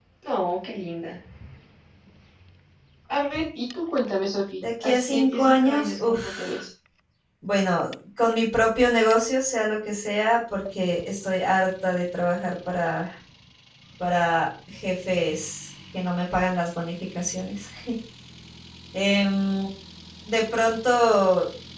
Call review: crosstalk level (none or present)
present